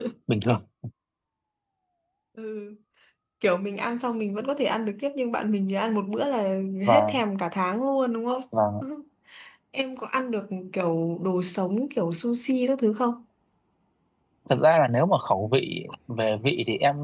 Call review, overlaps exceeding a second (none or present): none